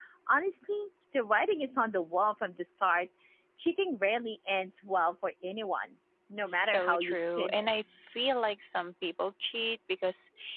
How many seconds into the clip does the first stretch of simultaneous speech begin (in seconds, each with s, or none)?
6.5 s